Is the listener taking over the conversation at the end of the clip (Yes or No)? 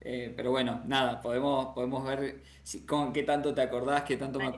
Yes